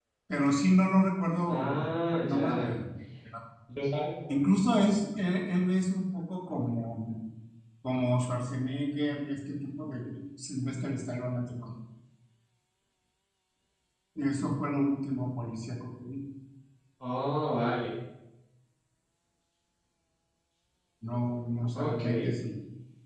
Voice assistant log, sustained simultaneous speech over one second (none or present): present